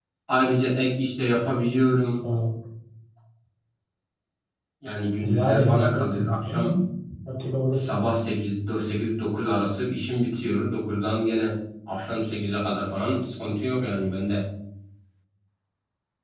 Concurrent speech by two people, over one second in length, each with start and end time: 5.2-6.8

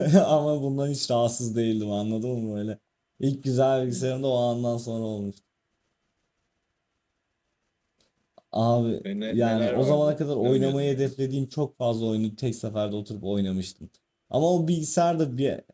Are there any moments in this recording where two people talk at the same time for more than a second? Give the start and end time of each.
9.0-11.1

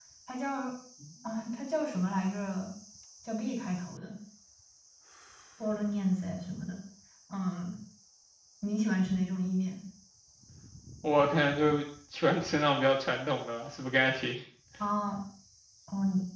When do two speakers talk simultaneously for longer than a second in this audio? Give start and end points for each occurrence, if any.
none

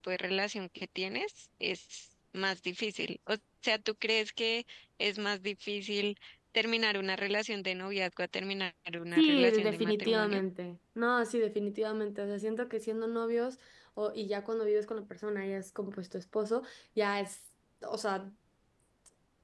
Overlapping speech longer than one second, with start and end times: 9.1-10.4

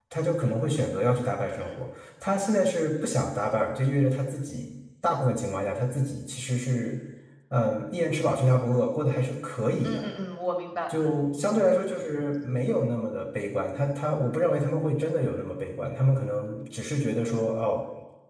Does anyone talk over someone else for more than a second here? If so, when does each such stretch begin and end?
none

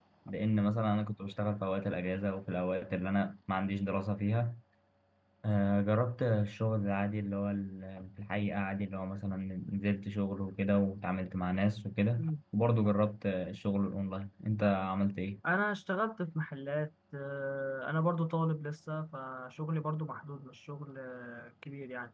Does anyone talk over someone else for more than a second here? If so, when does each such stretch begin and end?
none

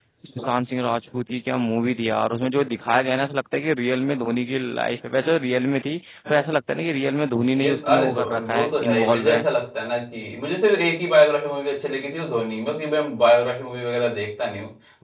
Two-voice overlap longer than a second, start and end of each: 7.6-9.4

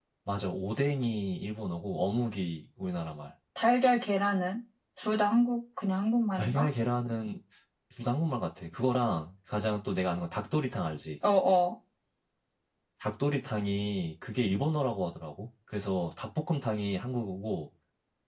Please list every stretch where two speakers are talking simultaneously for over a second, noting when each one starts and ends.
none

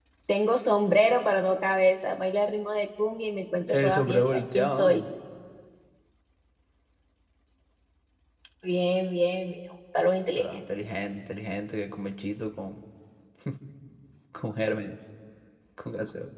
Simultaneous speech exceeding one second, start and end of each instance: 3.7-5.0

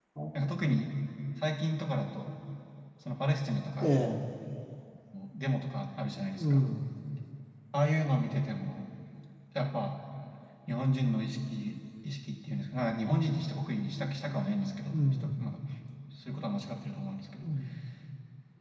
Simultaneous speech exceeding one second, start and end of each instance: none

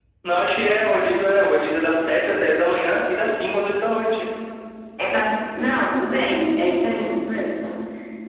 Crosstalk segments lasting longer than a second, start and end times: none

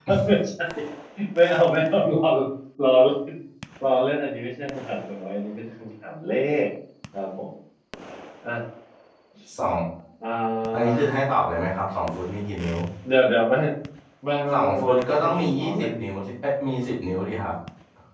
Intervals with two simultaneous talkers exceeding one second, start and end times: 14.5-15.9

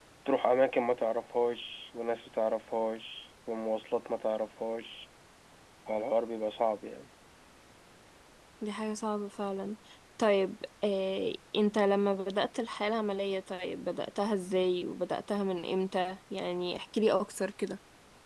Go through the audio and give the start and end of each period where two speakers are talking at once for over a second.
none

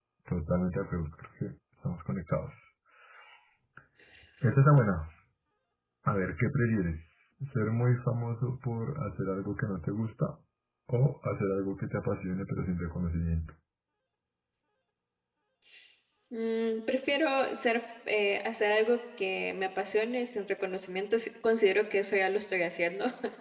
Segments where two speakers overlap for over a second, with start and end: none

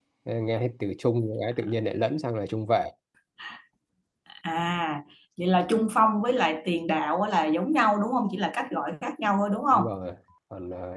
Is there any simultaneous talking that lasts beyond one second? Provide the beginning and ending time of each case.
none

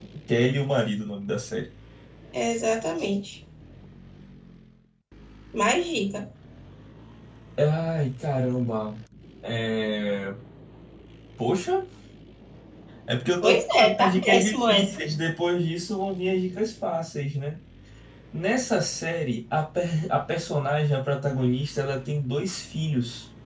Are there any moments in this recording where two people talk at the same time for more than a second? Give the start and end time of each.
13.4-15.0

